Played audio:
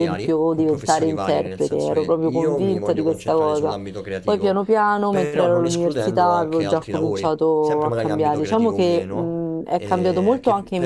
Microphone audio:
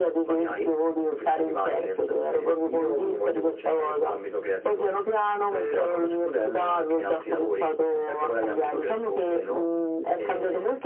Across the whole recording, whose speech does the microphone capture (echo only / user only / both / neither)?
echo only